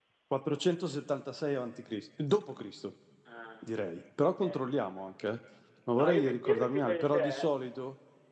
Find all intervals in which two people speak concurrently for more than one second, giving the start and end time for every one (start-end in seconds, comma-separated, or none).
6.0-7.5